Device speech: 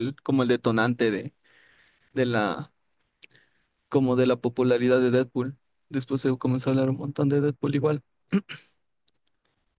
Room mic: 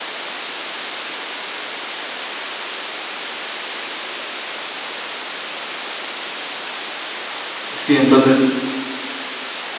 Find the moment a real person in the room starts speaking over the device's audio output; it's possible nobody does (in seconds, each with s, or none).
7.7 s